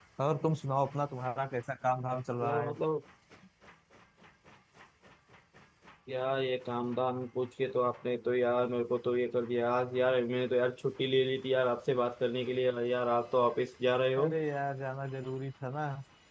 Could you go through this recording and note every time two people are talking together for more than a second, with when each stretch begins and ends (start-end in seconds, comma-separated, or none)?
none